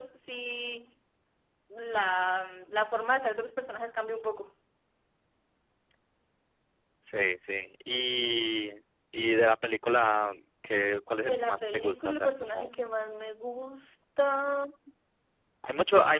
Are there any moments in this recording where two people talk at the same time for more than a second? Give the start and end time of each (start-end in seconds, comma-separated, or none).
11.3-12.7